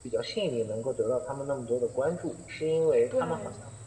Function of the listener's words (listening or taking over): listening